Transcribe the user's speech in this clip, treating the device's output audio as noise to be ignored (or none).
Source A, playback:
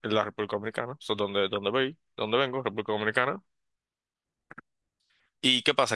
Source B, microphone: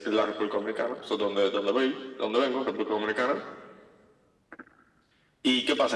none